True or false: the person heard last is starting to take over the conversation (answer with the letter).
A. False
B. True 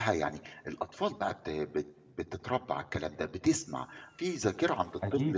B